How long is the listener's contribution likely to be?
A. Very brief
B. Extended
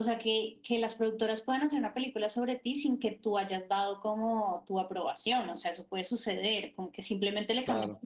A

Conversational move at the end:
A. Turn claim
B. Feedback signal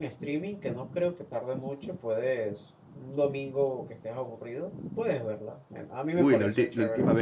A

